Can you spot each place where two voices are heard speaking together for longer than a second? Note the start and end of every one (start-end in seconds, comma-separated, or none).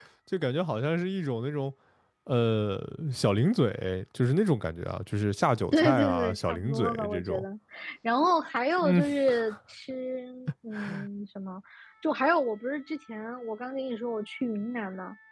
5.7-7.4